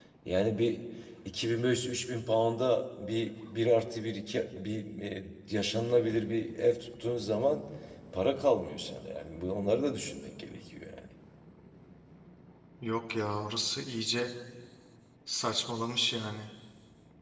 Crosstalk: none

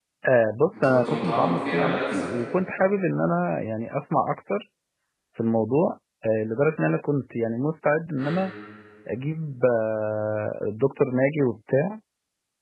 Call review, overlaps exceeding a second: present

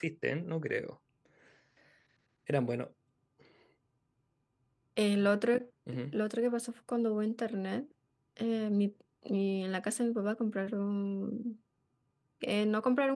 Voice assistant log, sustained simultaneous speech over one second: none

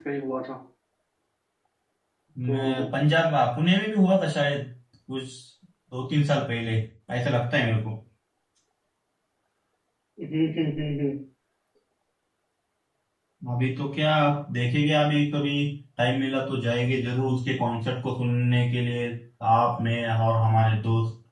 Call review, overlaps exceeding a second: none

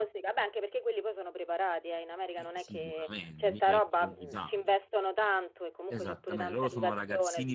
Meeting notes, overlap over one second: present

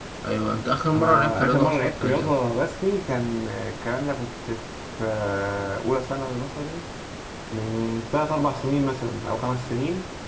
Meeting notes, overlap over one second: present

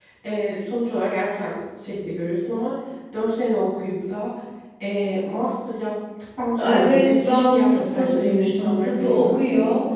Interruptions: present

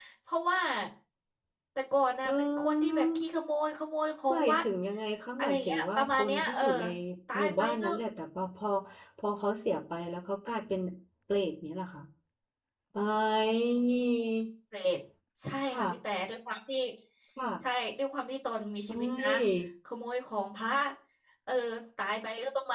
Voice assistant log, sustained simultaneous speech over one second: present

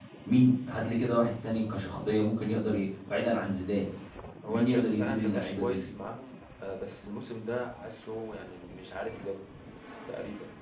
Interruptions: present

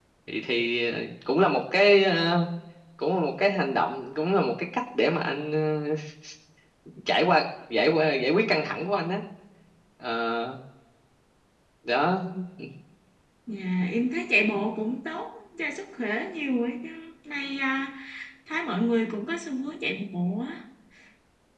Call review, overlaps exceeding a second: none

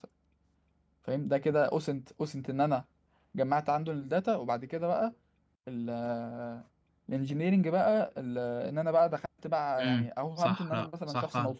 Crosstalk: present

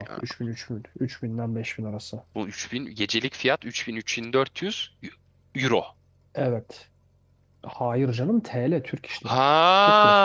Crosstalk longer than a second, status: none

